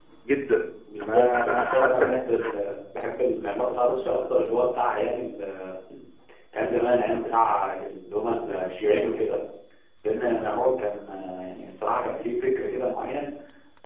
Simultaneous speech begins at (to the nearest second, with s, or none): 1 s